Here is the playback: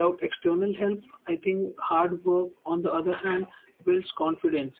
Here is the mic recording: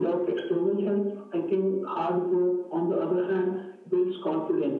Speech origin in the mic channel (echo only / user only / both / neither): echo only